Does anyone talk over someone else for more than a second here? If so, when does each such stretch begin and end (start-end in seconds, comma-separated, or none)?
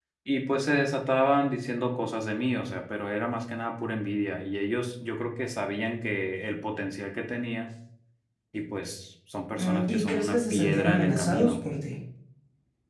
9.5-11.6